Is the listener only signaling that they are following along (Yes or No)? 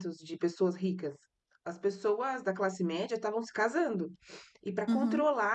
Yes